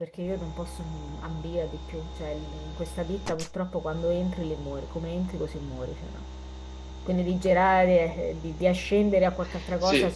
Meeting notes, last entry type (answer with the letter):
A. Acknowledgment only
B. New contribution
B